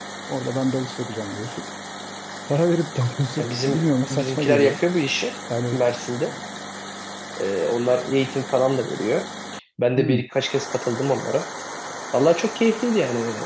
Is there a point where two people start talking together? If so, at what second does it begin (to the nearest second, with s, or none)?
3 s